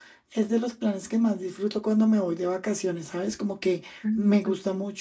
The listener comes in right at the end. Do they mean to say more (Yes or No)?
No